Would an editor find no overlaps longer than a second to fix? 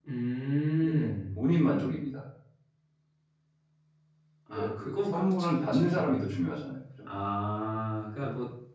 No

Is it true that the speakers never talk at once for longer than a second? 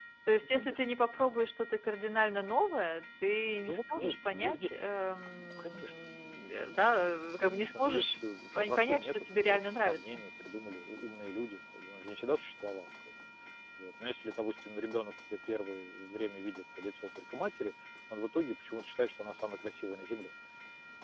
No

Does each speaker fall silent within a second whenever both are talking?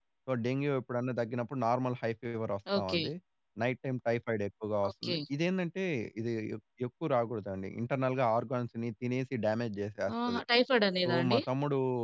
Yes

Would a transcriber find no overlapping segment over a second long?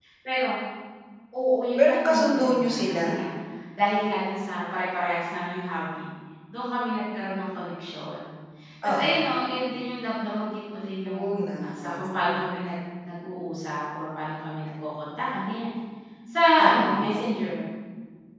No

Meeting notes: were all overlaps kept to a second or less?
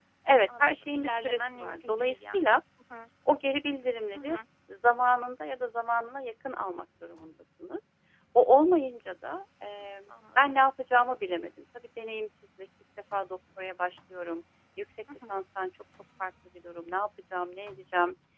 No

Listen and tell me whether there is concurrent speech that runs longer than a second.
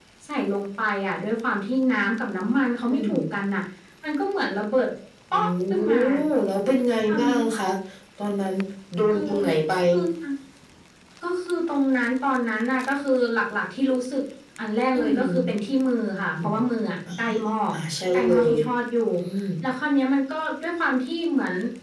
No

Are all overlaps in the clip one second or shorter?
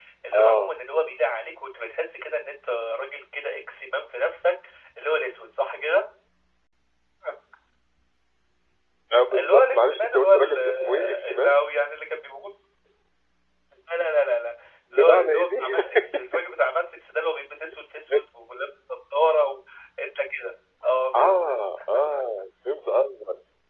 No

